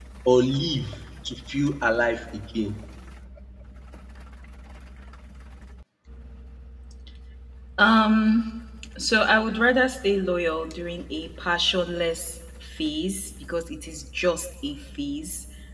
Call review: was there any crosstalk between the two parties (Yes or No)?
No